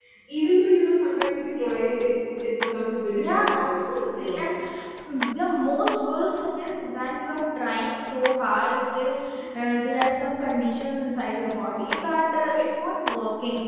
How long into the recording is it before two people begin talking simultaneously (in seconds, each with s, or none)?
3.2 s